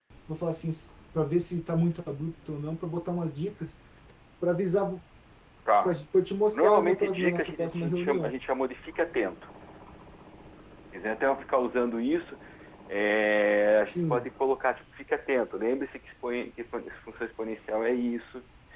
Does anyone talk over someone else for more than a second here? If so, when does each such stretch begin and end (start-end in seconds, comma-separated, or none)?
6.5-8.3